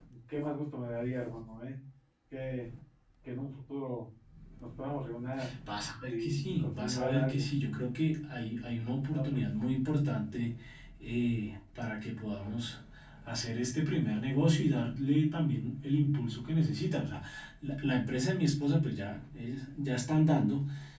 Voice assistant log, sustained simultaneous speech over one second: present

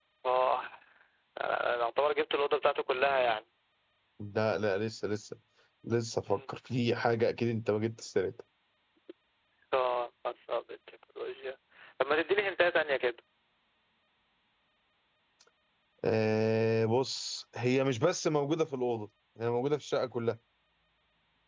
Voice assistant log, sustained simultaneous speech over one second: none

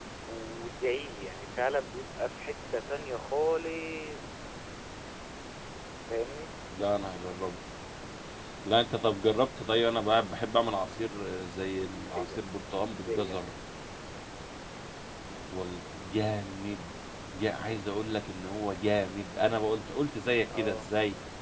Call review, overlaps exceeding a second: none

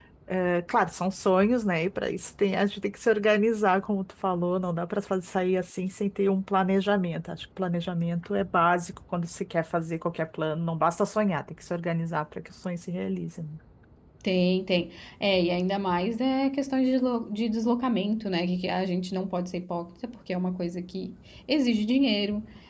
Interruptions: none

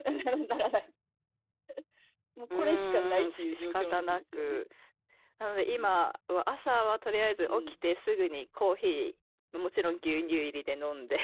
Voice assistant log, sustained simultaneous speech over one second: present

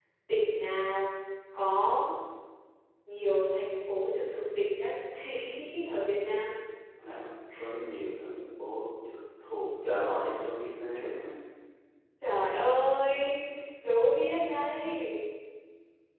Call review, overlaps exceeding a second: none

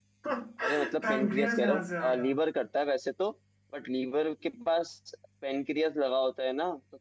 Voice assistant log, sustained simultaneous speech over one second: present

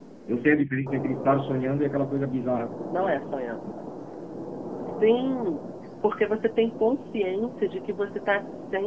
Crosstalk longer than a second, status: none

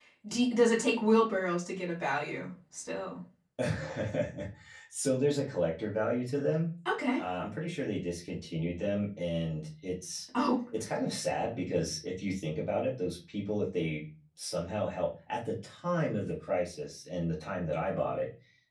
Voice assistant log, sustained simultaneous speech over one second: none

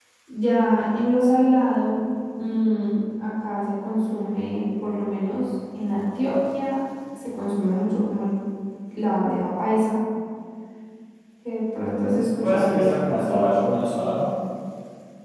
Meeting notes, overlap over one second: present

